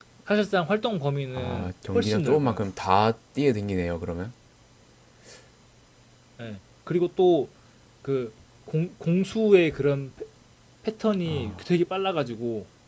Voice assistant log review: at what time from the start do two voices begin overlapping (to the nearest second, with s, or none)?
1 s